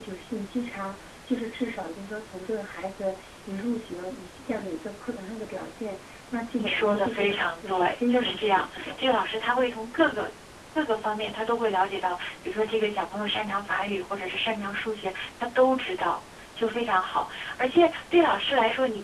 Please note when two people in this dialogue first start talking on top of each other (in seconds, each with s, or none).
6.6 s